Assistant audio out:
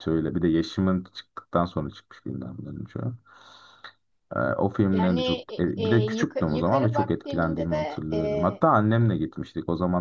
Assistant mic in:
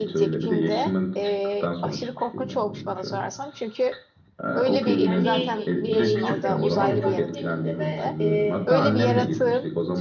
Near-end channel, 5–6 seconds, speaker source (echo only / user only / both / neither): both